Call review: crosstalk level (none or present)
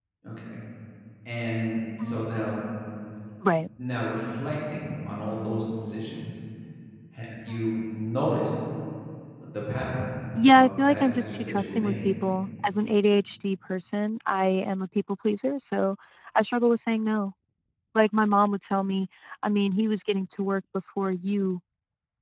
present